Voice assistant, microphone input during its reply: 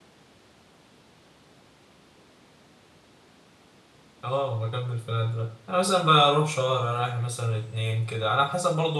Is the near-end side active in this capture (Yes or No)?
Yes